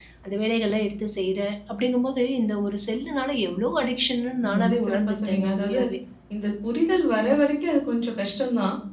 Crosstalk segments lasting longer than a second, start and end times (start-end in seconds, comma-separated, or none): 4.6-5.8